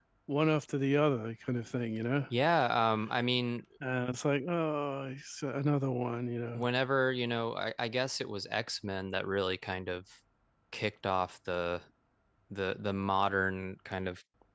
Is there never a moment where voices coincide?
Yes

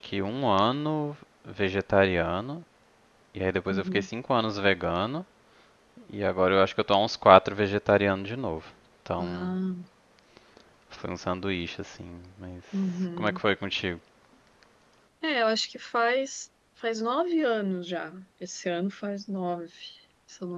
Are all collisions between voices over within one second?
Yes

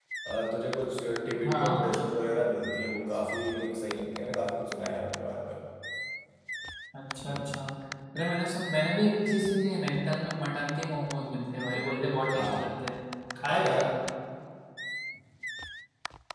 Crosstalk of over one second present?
No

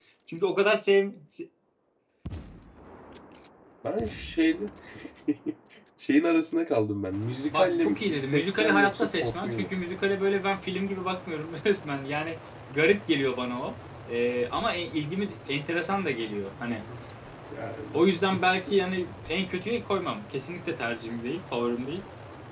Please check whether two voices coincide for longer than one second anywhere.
Yes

